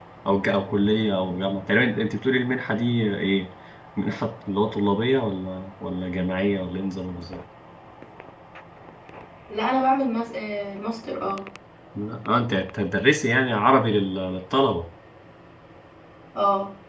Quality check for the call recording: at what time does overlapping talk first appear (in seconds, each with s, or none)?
none